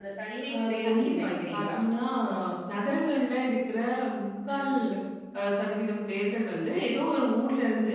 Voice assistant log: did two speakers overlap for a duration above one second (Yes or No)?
Yes